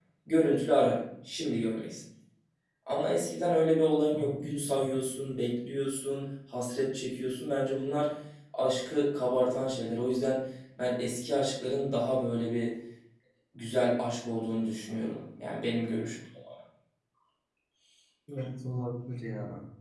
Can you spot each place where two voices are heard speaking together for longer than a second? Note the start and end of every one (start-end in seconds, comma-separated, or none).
none